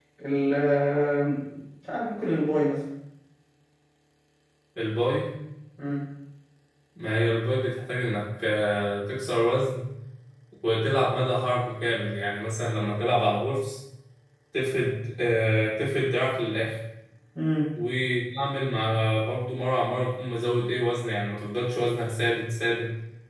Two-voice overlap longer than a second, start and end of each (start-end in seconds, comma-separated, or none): none